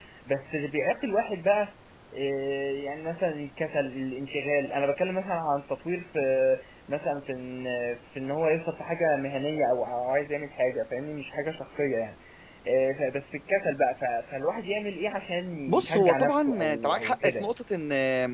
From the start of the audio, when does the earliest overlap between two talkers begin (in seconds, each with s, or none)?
15.7 s